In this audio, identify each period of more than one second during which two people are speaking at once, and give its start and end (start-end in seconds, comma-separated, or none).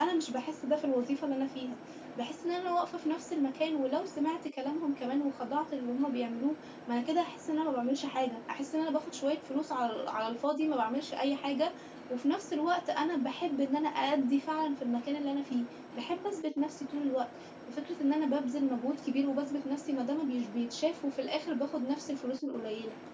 none